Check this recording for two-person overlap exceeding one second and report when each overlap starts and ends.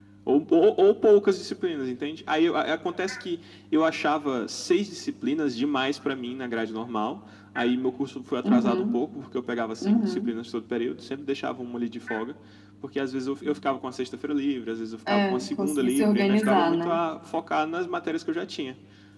15.1-17.0

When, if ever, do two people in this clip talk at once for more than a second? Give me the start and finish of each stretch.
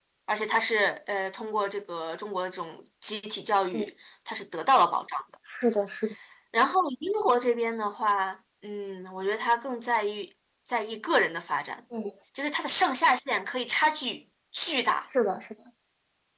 none

